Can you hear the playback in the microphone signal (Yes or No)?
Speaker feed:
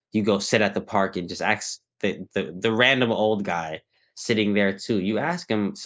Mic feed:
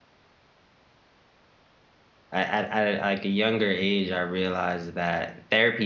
No